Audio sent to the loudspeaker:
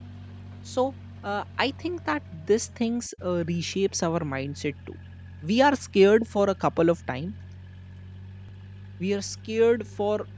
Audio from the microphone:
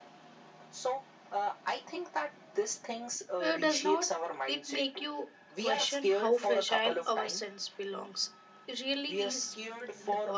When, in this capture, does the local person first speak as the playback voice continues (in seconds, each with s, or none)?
3.4 s